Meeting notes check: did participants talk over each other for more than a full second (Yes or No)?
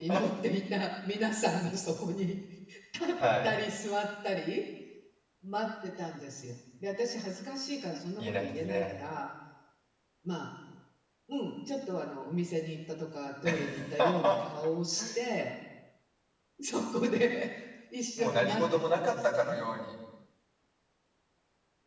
Yes